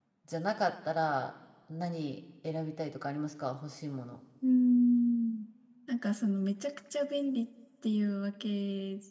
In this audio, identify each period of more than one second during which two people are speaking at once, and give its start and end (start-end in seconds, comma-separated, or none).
none